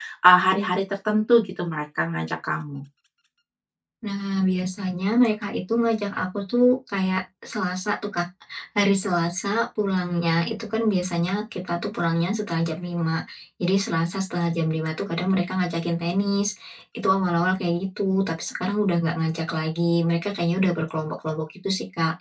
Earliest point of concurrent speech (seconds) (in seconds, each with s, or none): none